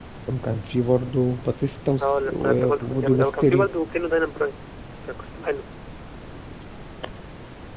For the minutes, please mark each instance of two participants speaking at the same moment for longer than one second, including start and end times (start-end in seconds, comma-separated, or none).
2.0-3.7